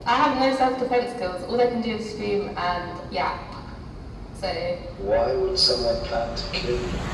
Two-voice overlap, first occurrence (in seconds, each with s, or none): none